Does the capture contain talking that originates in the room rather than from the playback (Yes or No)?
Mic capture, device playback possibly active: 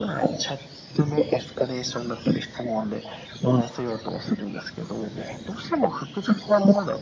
No